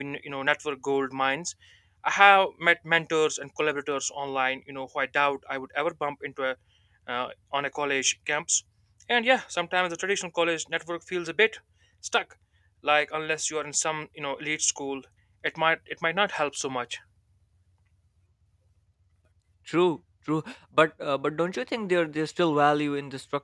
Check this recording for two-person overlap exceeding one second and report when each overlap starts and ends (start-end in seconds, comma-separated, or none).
none